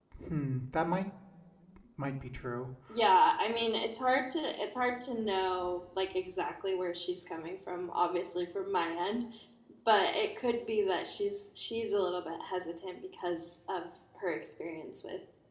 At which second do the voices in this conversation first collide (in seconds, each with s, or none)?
none